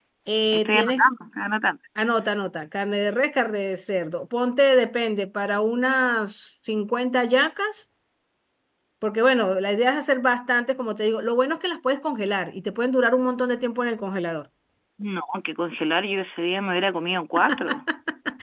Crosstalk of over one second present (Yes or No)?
No